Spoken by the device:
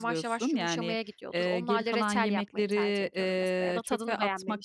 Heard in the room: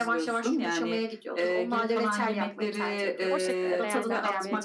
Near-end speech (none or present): present